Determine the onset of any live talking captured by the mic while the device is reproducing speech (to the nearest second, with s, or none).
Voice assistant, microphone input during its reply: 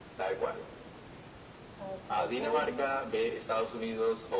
2 s